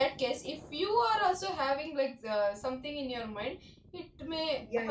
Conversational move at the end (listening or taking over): taking over